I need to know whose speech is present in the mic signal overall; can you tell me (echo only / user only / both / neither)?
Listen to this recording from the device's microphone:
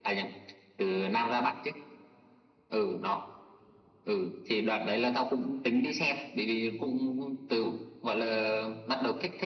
echo only